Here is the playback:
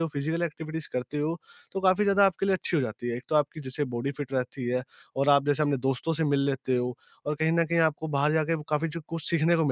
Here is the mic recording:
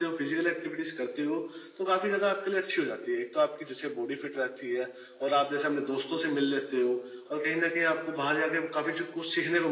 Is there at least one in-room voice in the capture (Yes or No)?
No